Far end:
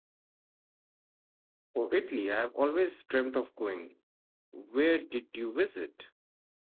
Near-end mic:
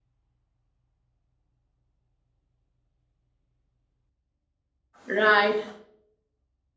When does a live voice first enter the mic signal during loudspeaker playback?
5.1 s

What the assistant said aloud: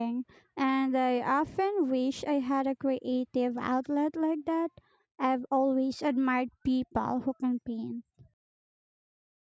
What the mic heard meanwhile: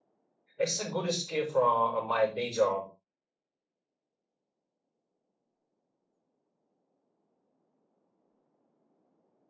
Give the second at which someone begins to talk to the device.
0.6 s

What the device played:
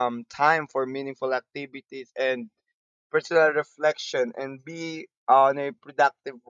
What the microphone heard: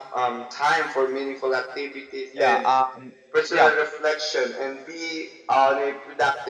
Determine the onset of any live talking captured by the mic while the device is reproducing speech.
2.3 s

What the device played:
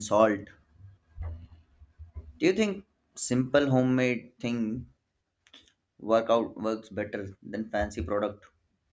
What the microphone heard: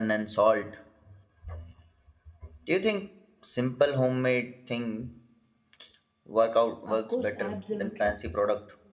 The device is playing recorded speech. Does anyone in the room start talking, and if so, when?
6.9 s

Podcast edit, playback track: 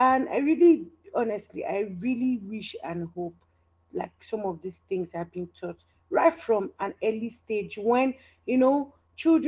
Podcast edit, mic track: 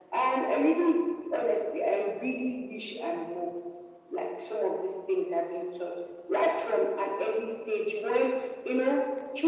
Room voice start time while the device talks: none

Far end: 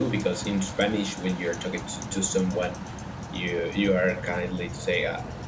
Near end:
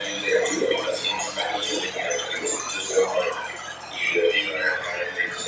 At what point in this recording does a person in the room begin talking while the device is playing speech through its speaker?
none

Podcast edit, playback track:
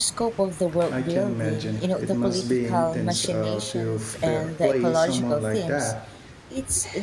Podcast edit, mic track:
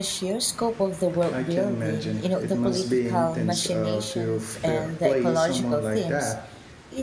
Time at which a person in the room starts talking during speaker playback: none

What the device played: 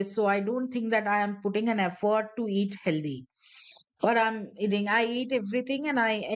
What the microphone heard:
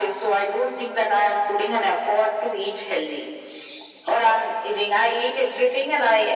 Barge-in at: none

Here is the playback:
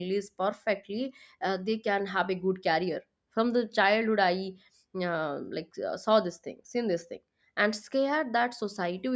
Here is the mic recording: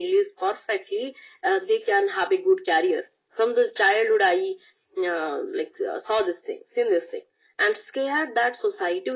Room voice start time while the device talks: none

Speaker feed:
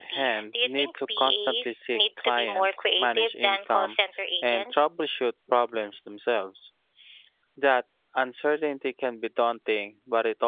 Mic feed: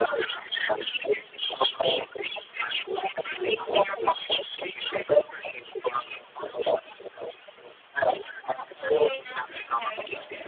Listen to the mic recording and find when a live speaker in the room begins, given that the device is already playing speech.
8.7 s

